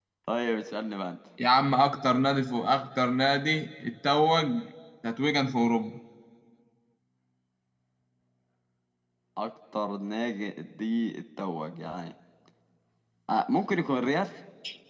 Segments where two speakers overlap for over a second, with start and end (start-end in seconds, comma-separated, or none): none